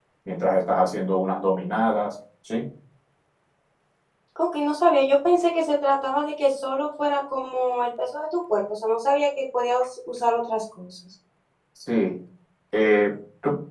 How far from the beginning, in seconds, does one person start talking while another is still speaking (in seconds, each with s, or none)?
none